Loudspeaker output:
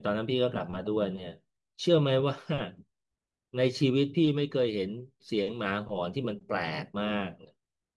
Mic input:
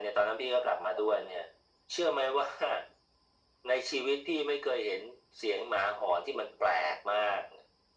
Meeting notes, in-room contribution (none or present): none